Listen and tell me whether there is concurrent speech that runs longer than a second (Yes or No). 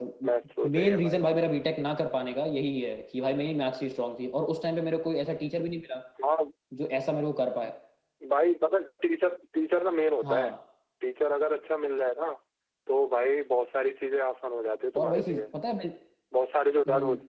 No